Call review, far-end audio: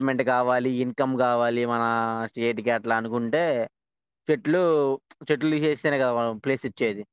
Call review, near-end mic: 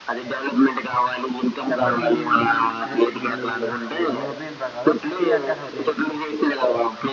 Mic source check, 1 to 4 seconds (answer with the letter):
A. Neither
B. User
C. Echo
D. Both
D